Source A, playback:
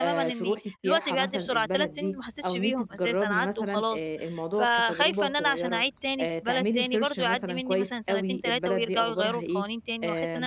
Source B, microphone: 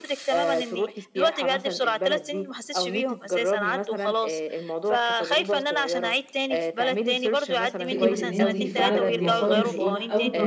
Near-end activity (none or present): present